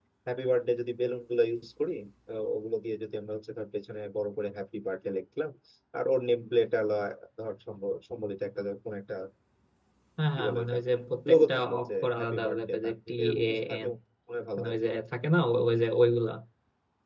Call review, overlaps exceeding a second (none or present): present